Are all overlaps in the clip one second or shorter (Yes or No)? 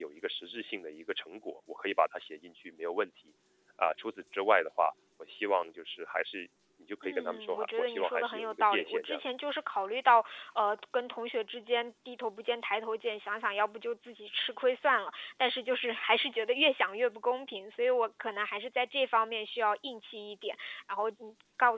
No